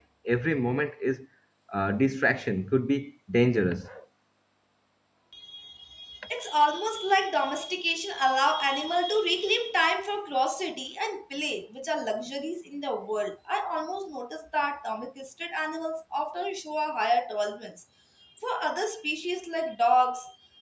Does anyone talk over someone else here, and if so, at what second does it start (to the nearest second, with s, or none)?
none